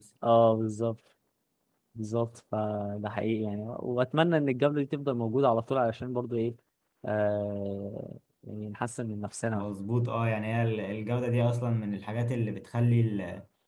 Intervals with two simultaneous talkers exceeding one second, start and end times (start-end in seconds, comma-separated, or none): none